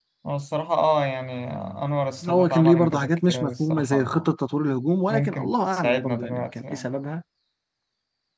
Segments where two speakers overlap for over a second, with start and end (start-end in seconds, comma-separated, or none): 2.3-4.3, 5.1-6.9